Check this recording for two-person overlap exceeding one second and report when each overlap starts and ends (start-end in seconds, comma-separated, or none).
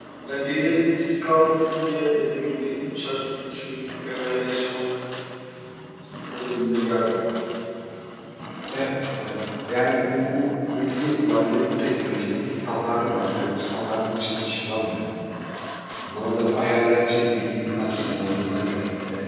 none